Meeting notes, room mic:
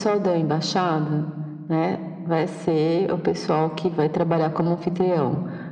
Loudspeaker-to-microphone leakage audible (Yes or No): Yes